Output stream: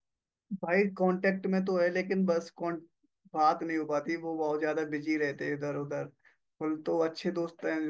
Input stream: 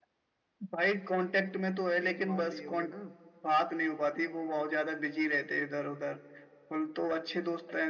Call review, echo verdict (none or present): present